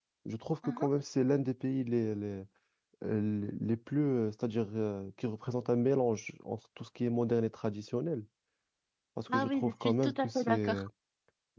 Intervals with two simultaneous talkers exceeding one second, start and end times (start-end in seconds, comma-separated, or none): 9.3-10.9